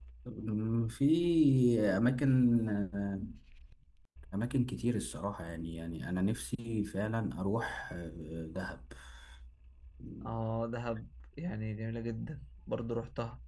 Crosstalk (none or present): none